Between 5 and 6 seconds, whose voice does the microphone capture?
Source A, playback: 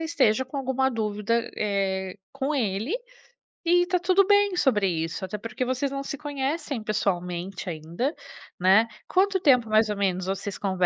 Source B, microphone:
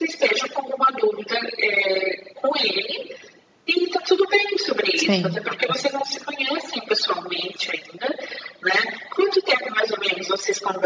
both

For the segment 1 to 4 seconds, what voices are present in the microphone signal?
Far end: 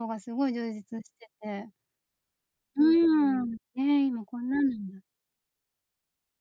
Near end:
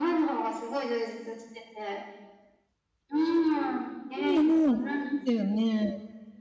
echo only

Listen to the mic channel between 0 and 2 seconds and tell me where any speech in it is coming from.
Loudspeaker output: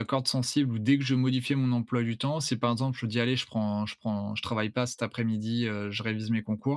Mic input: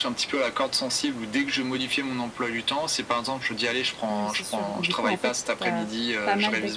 echo only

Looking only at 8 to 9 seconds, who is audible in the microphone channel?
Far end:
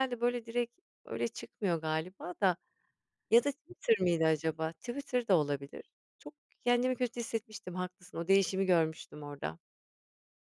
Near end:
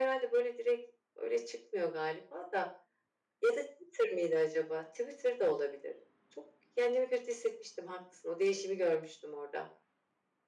echo only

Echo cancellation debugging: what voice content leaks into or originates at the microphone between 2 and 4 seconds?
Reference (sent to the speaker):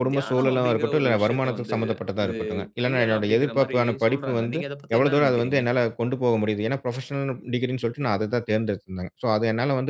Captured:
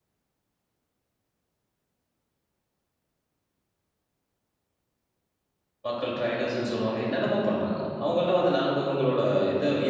neither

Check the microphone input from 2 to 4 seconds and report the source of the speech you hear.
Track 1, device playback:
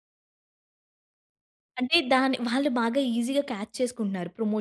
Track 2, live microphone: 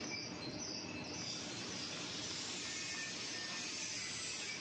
neither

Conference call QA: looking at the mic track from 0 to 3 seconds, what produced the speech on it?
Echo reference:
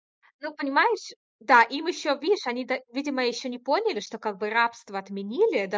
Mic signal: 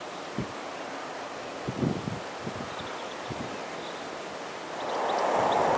neither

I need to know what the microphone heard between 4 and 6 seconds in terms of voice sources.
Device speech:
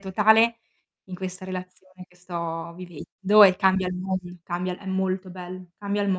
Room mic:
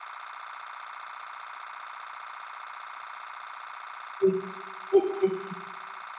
user only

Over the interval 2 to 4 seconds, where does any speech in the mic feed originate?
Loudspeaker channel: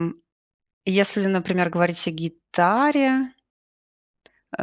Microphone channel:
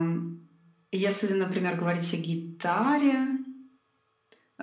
echo only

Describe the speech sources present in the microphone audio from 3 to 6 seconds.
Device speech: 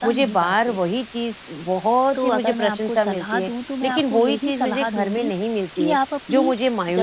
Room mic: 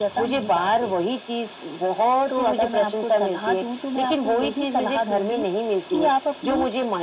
echo only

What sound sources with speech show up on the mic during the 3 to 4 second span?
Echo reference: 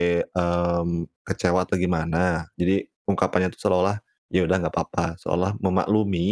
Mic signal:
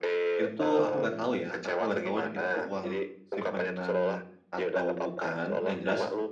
both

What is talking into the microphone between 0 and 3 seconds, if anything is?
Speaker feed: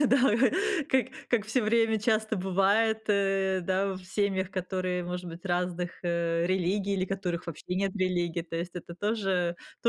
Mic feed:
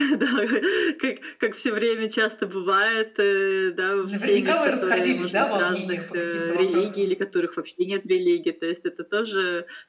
echo only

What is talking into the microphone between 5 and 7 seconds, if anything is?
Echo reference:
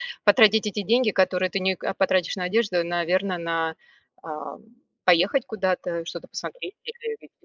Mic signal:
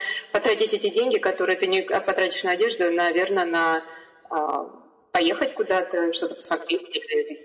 echo only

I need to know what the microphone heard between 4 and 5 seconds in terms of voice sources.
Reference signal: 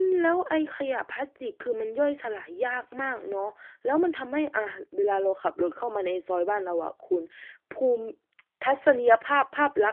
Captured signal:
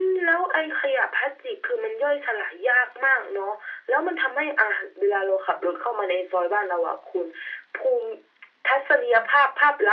echo only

